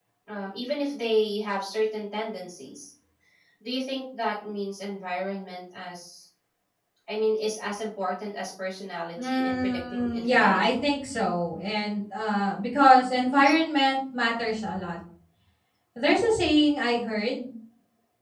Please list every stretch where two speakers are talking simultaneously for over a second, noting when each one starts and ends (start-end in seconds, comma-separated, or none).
9.2-10.8